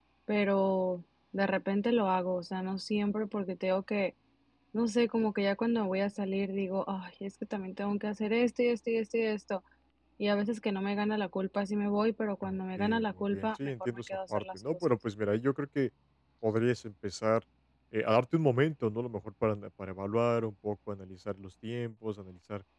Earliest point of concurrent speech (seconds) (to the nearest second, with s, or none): 12 s